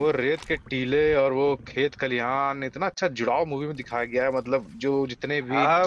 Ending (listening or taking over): taking over